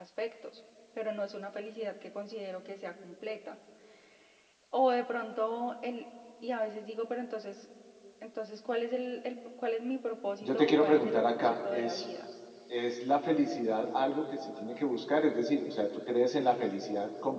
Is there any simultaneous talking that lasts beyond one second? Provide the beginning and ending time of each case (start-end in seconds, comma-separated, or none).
10.4-12.0